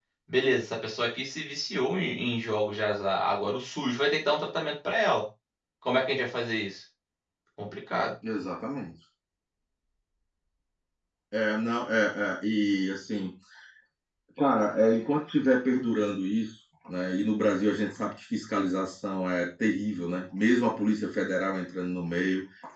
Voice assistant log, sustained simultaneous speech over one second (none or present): none